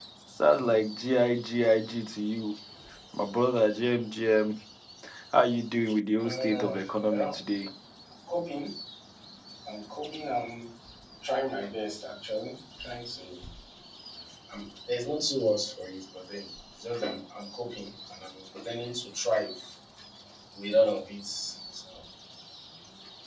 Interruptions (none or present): present